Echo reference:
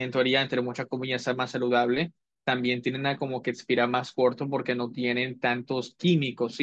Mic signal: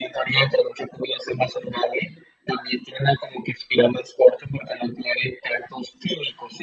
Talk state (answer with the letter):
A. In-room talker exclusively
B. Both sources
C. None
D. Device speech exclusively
D